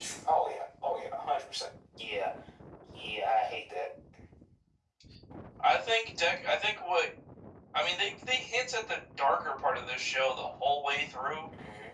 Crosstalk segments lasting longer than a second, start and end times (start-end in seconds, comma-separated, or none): none